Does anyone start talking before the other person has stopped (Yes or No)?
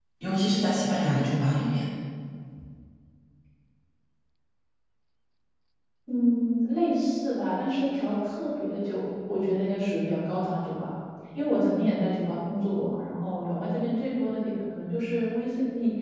No